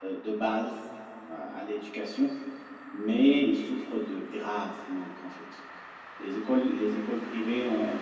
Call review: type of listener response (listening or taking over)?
listening